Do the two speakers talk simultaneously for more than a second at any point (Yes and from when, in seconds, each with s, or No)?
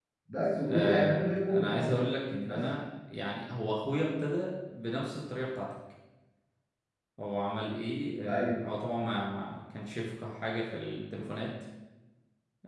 Yes, from 0.7 s